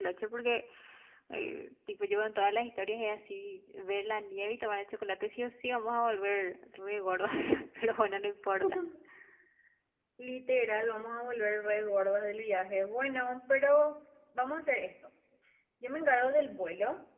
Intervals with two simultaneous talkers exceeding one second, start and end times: none

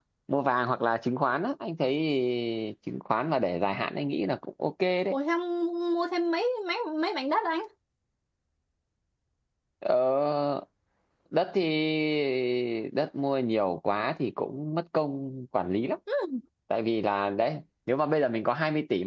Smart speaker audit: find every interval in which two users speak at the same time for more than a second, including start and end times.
none

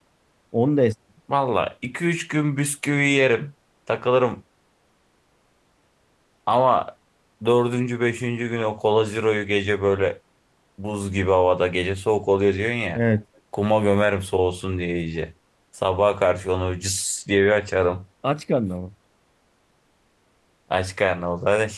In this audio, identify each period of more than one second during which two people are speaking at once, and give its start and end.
none

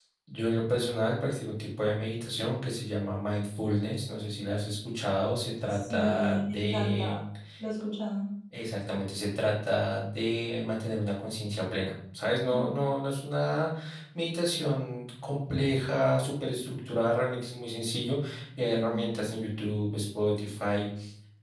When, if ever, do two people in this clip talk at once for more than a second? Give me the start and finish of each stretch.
5.7-7.2

